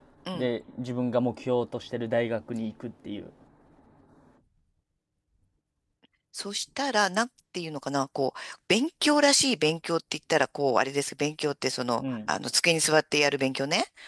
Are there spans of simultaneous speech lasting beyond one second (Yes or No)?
No